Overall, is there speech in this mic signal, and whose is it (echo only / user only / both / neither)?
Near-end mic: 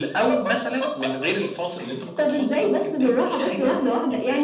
echo only